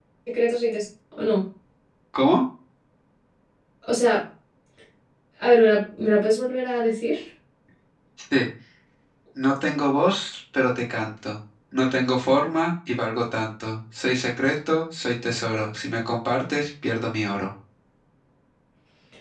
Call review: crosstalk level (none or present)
none